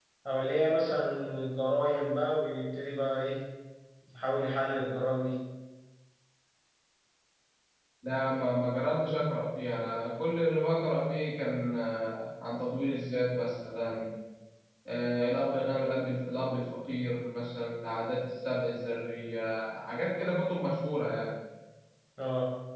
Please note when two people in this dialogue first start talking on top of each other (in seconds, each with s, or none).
none